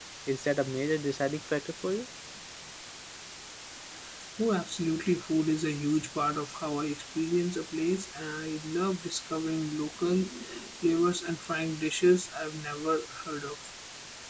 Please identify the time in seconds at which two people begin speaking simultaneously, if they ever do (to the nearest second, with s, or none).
none